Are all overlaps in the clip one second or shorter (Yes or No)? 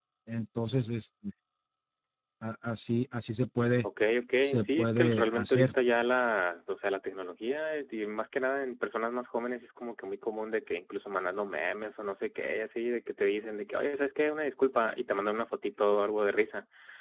No